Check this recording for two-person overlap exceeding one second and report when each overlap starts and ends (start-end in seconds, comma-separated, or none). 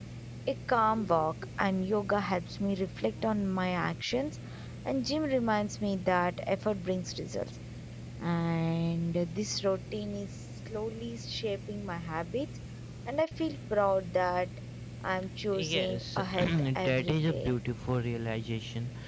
15.5-17.5